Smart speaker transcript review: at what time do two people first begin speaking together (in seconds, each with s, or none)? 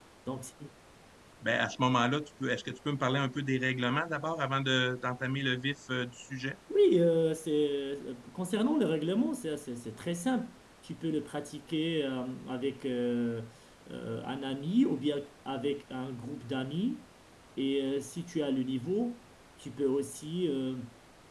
none